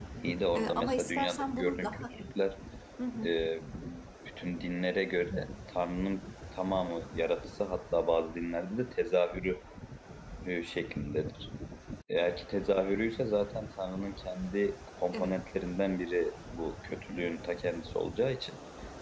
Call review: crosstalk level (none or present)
present